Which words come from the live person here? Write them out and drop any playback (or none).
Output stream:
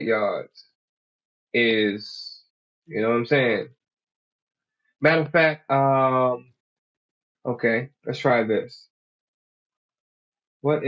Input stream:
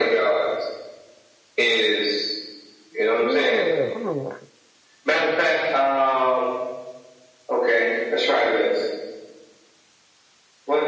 You need a little long one.